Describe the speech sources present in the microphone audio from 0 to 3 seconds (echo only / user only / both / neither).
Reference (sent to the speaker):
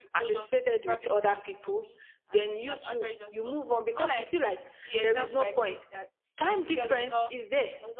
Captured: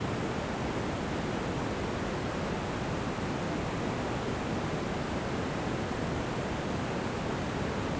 neither